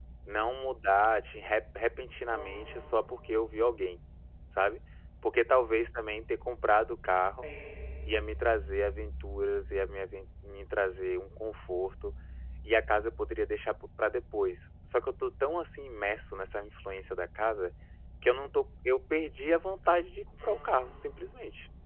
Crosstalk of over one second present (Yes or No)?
No